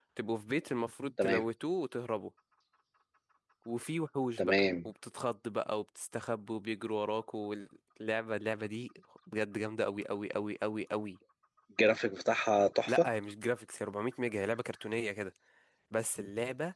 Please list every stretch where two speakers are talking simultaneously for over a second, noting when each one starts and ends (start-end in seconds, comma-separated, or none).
none